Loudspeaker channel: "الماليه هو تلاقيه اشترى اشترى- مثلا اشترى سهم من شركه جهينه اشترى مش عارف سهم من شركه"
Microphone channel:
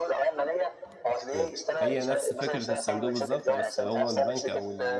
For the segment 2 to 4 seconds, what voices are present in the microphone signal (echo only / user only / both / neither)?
both